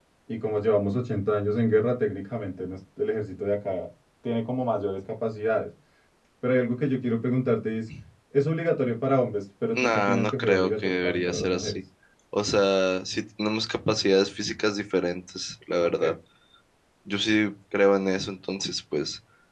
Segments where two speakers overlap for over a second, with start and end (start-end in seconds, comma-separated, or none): 9.8-11.8